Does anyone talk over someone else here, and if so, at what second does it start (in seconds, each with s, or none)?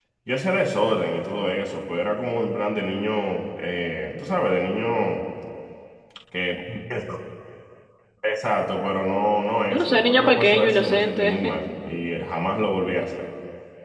9.7 s